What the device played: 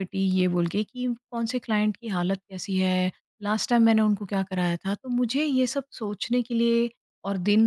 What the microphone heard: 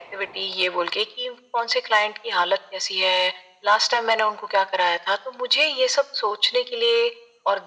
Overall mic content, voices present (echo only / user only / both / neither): echo only